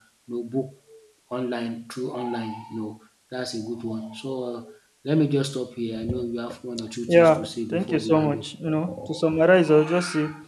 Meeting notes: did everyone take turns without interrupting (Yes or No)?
No